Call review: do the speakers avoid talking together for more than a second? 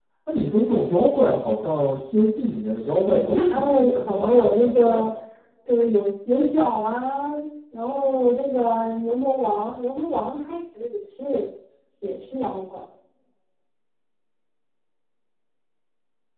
No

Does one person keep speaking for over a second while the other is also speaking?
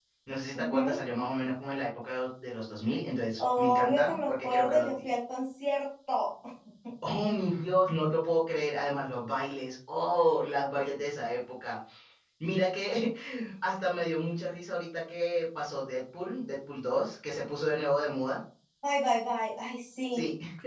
Yes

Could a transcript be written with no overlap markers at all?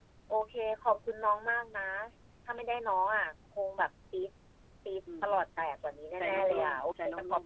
No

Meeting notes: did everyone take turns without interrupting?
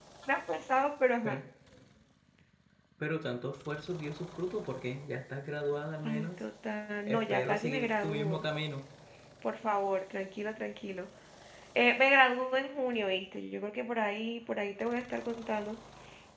No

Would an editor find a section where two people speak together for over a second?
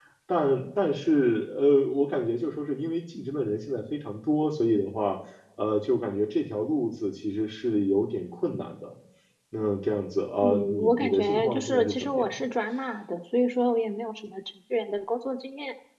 Yes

